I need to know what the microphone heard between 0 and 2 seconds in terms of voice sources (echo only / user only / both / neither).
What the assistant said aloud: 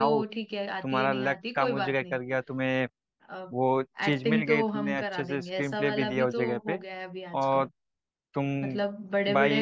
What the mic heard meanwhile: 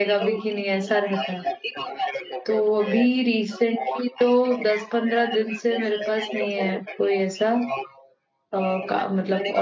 both